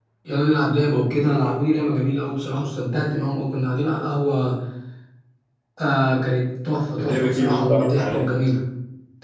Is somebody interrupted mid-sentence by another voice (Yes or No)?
Yes